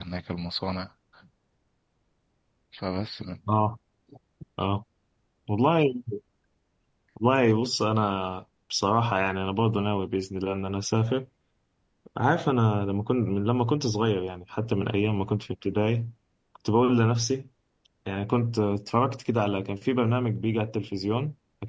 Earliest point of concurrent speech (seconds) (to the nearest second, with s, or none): none